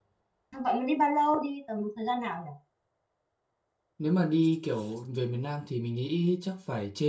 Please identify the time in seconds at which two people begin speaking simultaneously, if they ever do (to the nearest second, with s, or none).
none